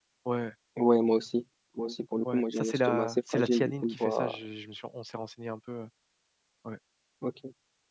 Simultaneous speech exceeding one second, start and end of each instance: 2.3-4.4

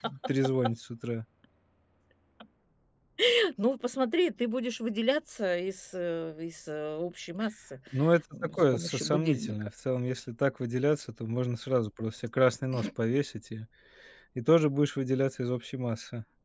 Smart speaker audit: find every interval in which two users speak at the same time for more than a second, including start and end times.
8.4-9.7

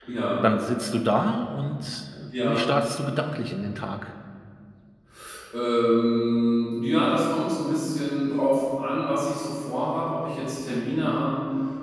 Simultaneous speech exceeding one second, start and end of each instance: none

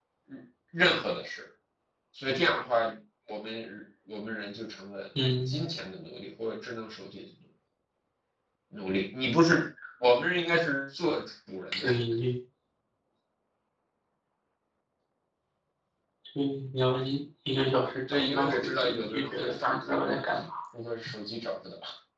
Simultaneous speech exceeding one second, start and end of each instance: 18.1-20.2

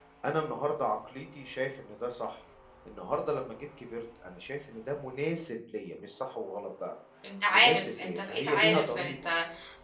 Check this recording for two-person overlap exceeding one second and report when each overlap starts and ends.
7.5-9.3

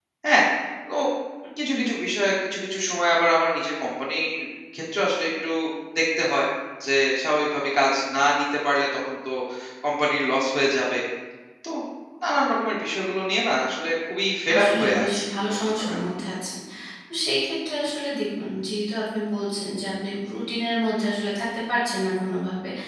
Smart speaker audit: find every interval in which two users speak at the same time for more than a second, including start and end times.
14.6-16.0

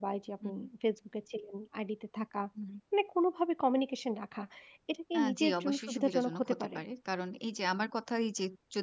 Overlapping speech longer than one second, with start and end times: 5.2-6.7

